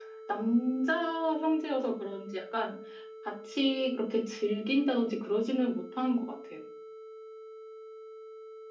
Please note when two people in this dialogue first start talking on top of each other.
none

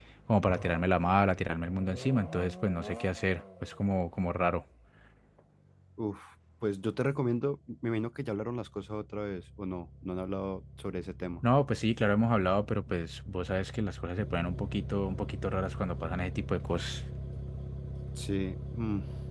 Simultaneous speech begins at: none

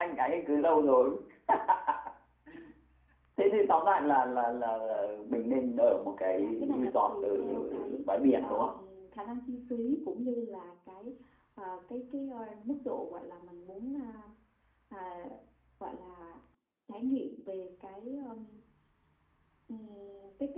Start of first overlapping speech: 6 s

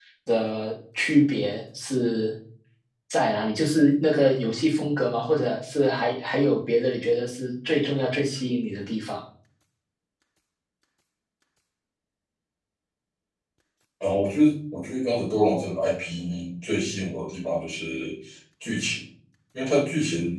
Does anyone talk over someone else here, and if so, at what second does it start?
none

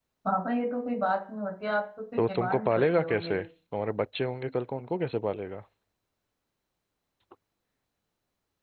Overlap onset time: 2 s

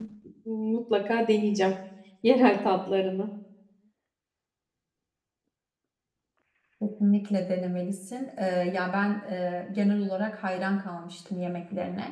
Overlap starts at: none

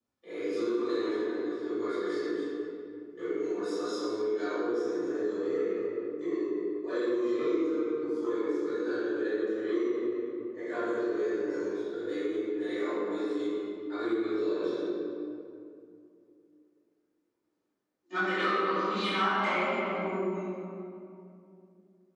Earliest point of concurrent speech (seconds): none

